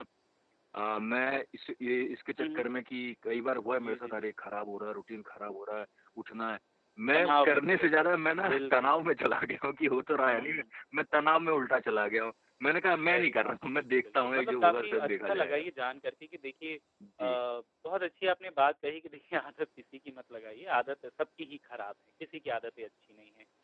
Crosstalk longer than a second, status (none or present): present